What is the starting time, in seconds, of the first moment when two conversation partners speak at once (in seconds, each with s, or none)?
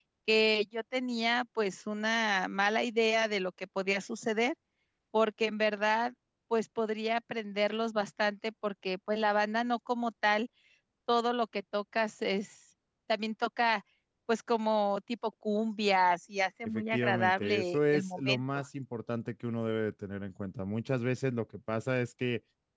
16.6 s